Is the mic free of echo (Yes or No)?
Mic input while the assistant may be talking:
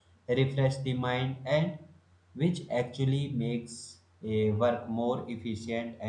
Yes